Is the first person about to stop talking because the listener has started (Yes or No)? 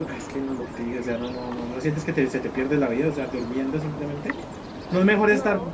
No